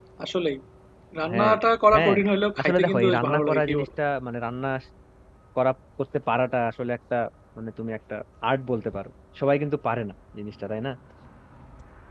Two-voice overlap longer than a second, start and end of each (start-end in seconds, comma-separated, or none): 2.6-3.9